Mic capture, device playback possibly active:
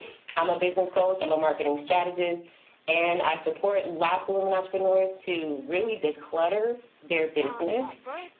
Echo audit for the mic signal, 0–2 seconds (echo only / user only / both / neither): echo only